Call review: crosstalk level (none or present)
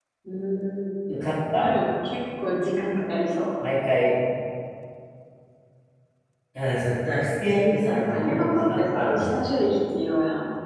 present